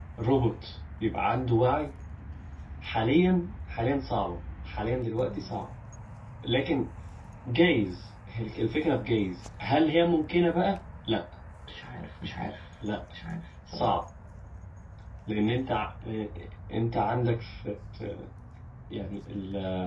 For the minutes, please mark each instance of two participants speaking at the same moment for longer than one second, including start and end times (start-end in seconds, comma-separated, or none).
none